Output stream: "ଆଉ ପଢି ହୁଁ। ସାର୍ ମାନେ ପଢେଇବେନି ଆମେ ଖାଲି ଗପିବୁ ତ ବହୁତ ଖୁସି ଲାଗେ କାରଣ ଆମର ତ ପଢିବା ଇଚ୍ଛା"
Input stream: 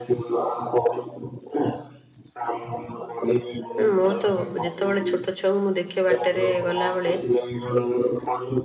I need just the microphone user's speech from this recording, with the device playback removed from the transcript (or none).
ହୁଁ ମୋର ତ ଯେତେବେଳେ ଛୋଟ ଛୁଆଙ୍କୁ ମୁଁ ଦେଖେ ବାଟରେ ଗଲାବେଳେ